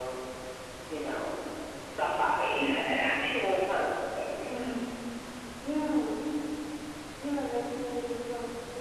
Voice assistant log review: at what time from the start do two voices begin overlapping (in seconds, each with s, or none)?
none